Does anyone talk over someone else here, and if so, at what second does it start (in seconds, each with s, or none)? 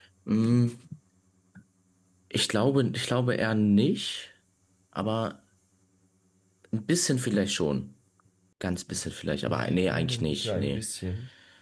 9.5 s